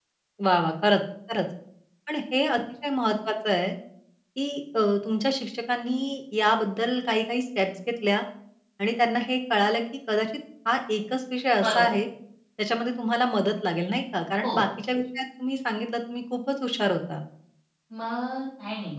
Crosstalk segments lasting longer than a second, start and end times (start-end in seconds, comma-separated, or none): none